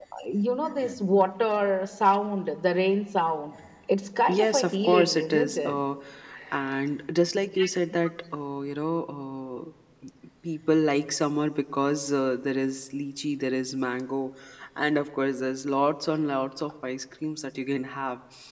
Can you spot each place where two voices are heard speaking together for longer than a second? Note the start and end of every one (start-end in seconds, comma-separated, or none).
4.3-5.8